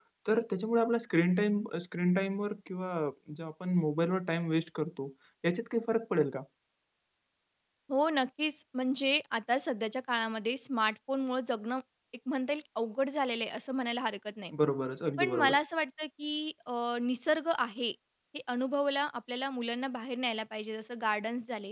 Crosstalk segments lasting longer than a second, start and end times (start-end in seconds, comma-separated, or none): none